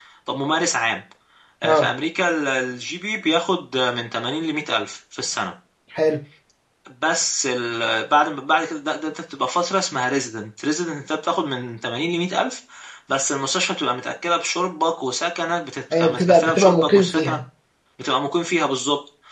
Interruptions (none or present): present